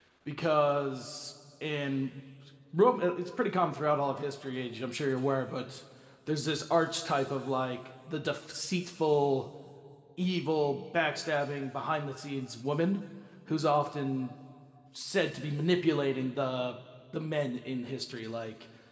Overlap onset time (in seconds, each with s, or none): none